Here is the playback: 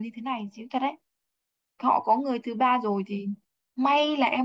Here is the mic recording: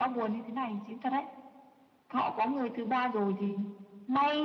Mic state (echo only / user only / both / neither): echo only